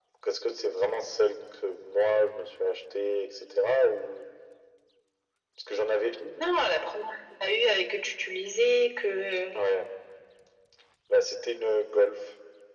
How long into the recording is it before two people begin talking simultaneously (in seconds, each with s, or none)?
none